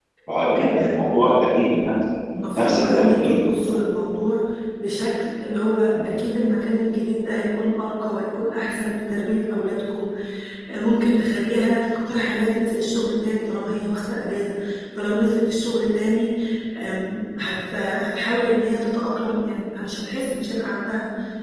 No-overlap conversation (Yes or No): No